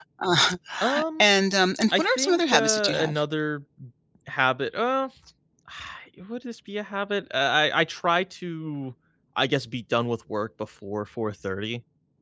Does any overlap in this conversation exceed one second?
Yes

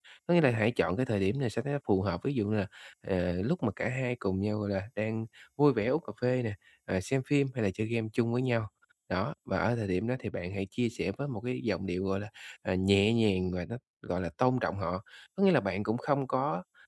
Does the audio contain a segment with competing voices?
No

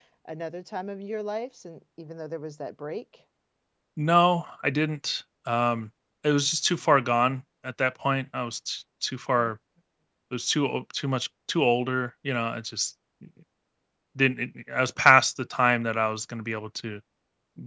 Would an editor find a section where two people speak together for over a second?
No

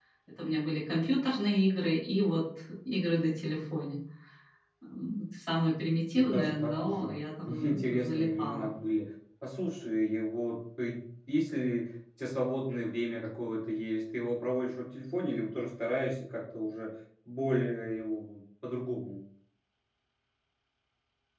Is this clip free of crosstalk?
No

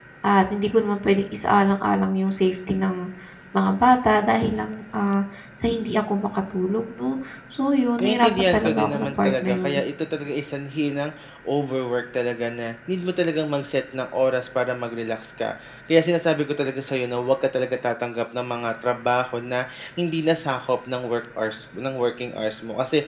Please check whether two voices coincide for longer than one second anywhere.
Yes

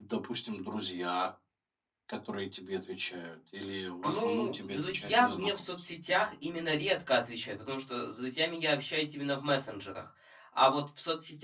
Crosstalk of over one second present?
Yes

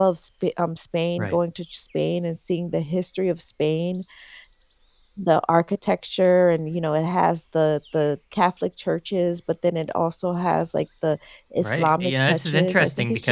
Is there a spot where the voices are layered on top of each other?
Yes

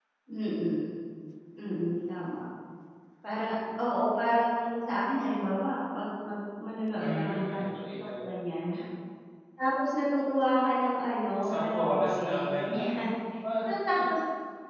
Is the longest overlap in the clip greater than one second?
Yes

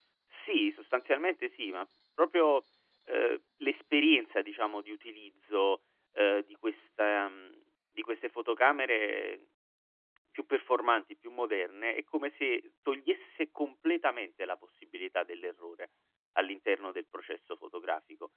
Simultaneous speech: No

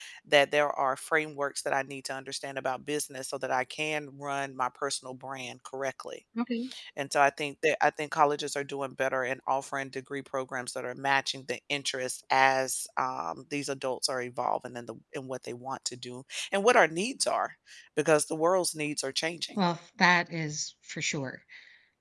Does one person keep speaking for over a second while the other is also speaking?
No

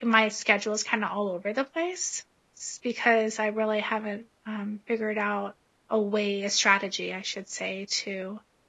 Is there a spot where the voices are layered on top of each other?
No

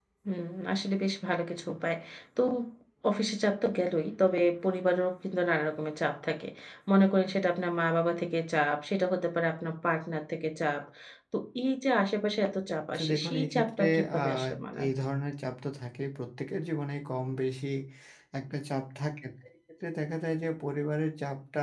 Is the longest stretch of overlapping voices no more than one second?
No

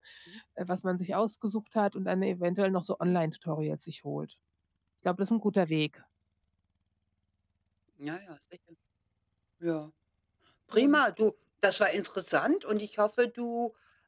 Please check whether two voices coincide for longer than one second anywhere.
No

